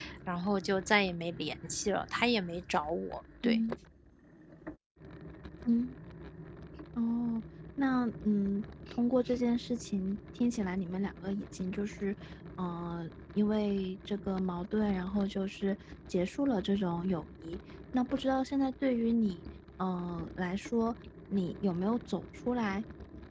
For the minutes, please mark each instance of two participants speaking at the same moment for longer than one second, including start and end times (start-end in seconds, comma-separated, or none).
none